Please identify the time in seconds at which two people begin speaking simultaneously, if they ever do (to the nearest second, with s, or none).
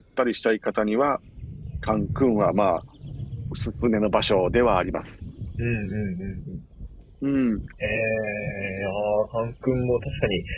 none